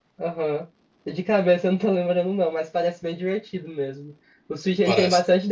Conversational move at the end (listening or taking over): listening